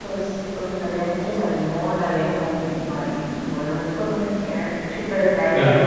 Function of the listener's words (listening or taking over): listening